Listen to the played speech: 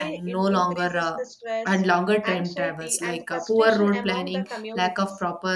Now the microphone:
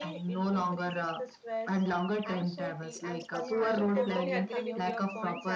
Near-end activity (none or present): present